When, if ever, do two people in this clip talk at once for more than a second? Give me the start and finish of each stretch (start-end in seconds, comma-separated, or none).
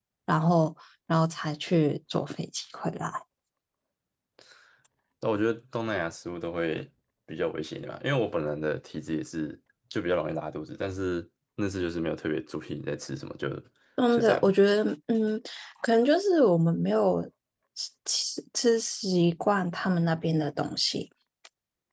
none